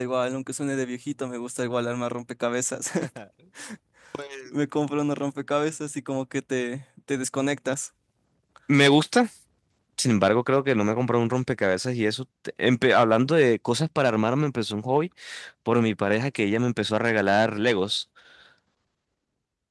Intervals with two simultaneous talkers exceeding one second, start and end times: none

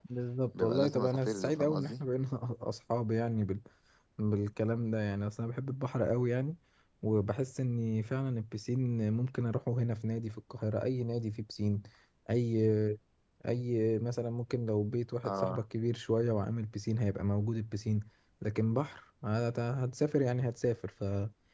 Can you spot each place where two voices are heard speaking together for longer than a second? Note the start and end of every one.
0.6-2.0

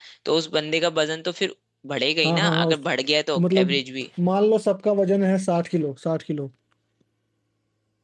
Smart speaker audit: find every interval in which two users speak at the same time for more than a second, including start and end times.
none

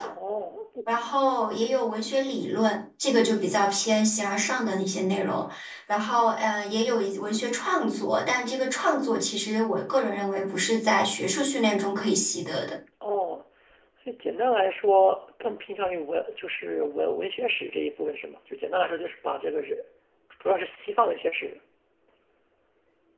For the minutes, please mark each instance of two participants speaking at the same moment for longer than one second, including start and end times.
none

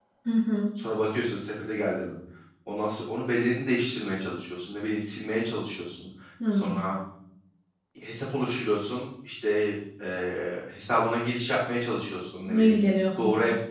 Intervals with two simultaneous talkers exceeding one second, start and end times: none

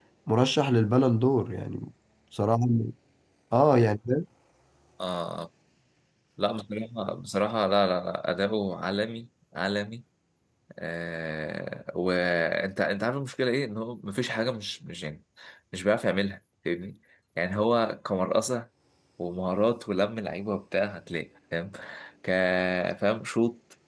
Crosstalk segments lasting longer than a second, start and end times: none

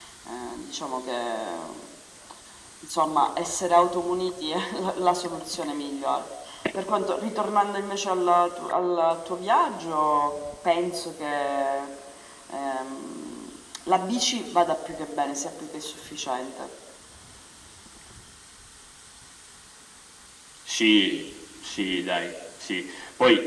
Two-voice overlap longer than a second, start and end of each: none

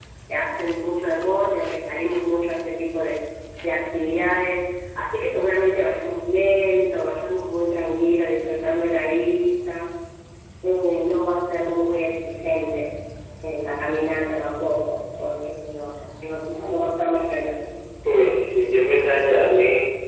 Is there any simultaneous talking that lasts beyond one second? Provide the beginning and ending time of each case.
none

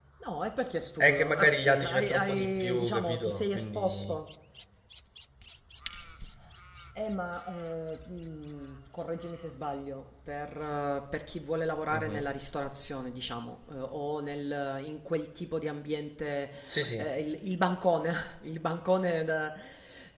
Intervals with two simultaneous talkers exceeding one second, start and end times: 1.0-4.2

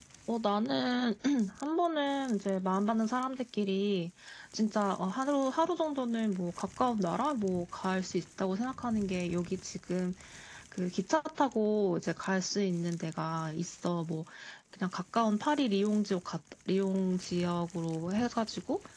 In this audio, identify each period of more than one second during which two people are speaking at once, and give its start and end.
none

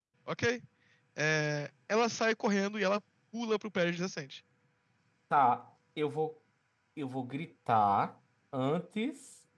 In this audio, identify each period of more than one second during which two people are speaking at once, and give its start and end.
none

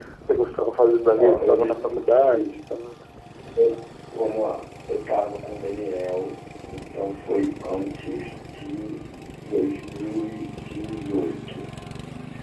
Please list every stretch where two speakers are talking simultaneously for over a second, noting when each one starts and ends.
1.1-2.5

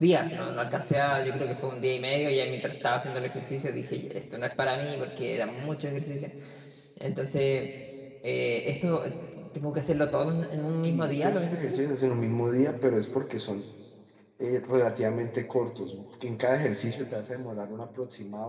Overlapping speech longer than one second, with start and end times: 10.5-11.8

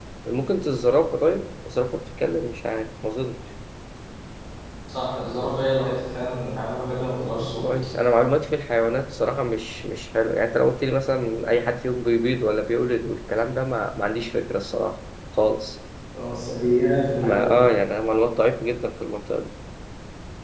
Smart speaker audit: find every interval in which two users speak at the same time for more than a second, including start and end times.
none

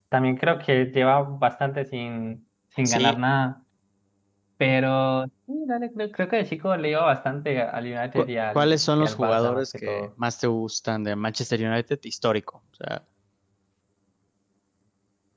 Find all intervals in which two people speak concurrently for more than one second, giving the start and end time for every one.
8.2-10.1

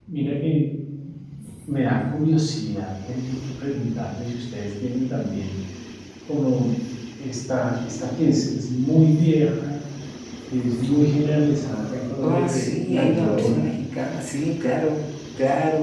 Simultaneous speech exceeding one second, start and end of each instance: 12.2-13.7

